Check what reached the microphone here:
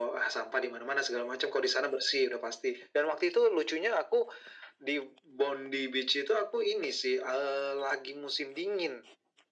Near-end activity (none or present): none